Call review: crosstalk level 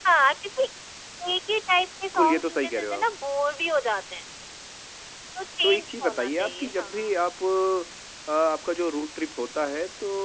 present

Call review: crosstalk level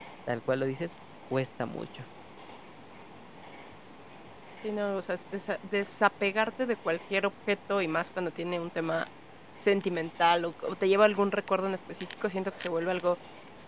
none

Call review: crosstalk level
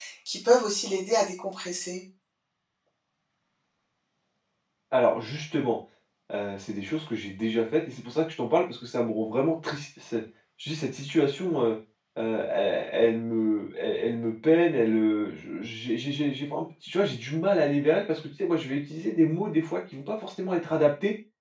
none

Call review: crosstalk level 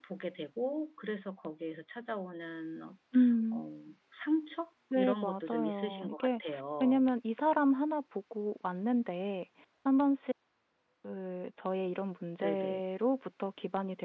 present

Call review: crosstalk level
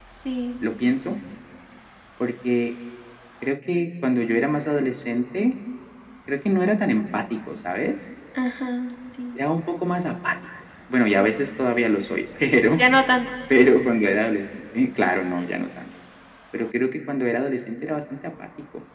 none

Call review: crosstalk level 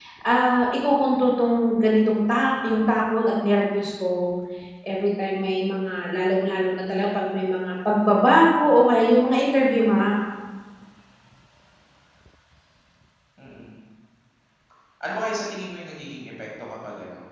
none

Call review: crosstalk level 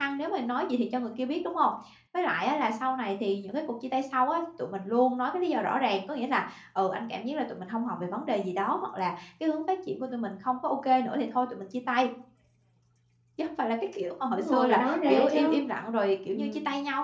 present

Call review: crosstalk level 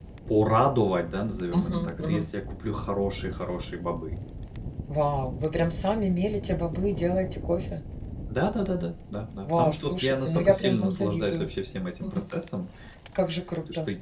present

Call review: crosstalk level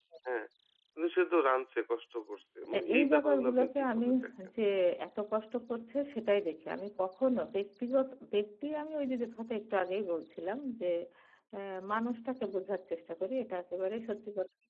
present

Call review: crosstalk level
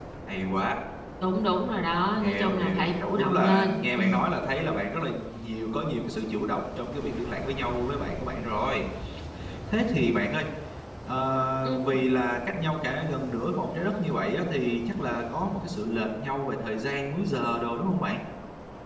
present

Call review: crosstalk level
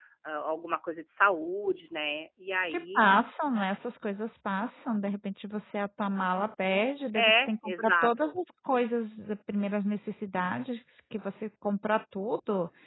present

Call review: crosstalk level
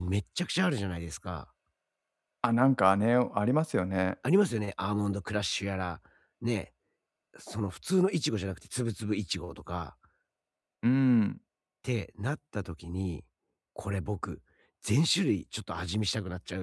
none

